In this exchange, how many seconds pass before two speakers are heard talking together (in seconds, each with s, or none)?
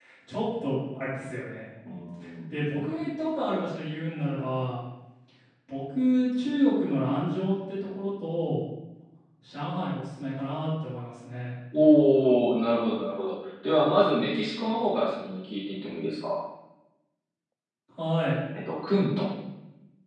none